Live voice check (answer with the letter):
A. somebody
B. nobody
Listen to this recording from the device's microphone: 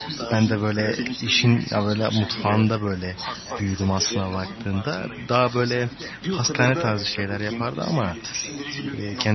A